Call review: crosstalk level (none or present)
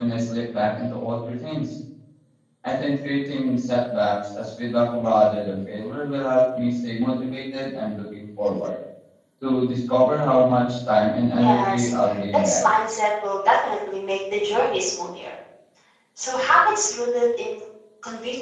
present